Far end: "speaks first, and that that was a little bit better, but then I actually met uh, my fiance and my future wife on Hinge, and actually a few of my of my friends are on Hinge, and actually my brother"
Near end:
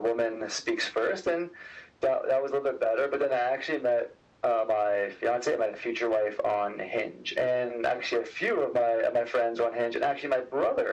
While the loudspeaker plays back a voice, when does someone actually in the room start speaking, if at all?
none

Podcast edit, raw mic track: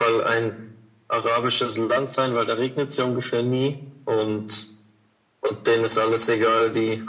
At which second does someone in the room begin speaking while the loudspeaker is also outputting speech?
none

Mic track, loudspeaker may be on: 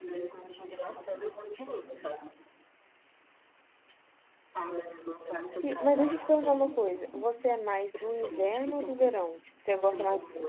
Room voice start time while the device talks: 6 s

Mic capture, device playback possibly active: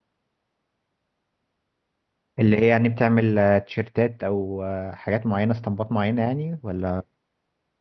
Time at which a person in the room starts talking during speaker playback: 2 s

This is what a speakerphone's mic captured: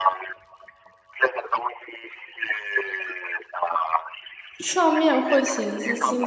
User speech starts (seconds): 5 s

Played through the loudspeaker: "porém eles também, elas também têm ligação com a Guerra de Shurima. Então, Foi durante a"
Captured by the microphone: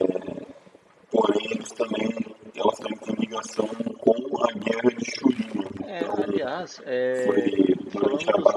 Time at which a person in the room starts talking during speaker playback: 6 s

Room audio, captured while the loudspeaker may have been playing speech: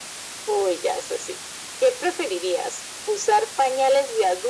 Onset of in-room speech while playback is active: none

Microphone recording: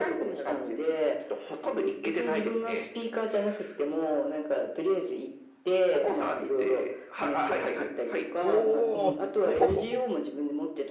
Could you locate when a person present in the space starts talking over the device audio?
8 s

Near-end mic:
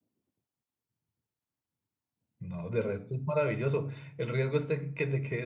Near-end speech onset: 2 s

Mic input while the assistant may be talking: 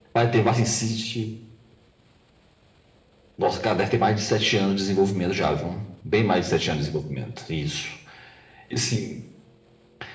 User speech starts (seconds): none

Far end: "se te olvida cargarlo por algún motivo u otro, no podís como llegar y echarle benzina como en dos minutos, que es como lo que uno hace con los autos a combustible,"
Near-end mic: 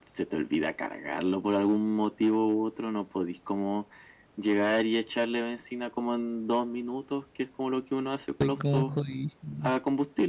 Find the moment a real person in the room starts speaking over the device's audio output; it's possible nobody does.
8 s

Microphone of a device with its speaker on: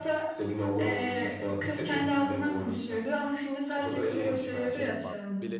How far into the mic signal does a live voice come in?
5 s

